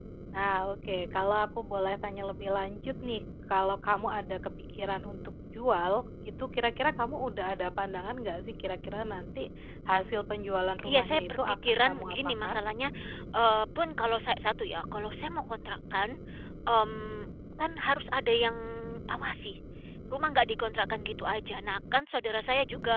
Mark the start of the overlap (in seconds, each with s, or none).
10.8 s